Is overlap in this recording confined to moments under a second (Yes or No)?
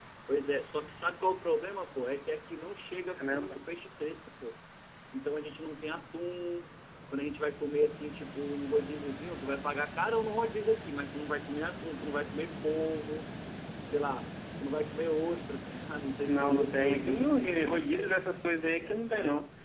No